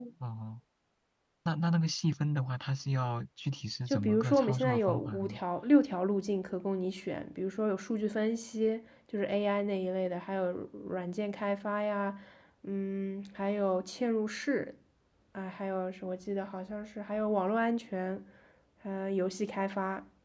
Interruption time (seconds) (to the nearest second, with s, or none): 4 s